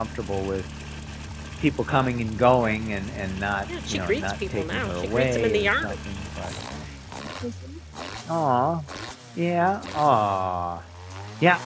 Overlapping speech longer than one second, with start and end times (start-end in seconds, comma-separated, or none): 3.8-5.9